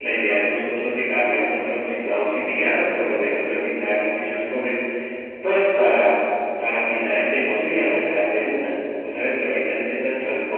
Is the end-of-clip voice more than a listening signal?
No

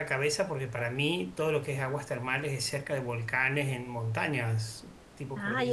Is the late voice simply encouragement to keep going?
No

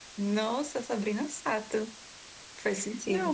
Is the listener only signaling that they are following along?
No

